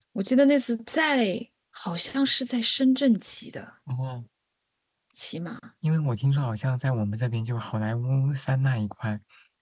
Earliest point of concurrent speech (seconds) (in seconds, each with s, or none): none